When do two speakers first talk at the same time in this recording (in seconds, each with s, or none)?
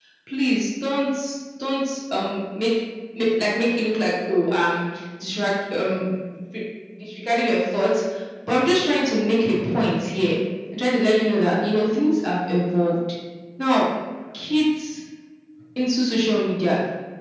none